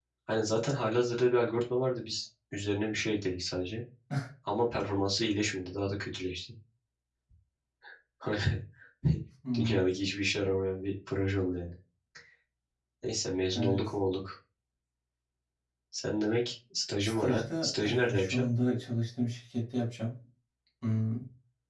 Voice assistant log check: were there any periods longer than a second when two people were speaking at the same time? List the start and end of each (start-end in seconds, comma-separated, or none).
17.0-18.5